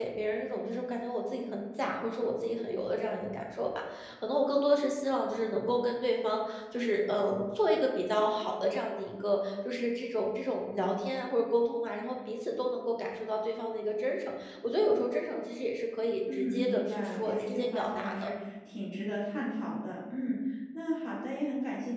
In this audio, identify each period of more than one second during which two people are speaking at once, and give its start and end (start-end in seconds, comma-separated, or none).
16.3-18.3